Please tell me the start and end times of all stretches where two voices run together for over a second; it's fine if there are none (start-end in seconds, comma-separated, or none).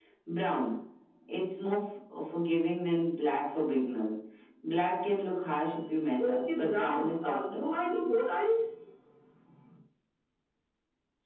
6.2-7.7